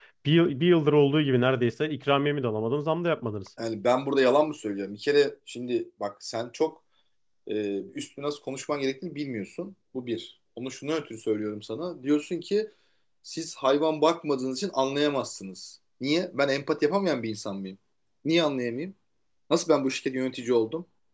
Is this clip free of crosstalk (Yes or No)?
Yes